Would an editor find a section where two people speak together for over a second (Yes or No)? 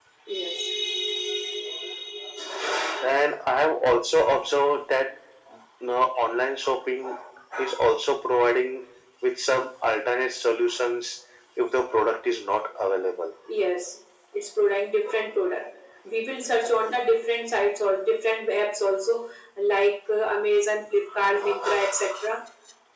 No